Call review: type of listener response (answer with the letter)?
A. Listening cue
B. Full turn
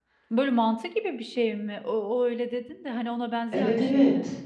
B